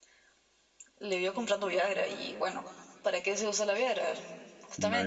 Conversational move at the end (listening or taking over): taking over